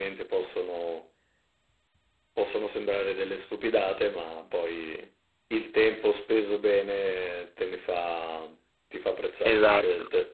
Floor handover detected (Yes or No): Yes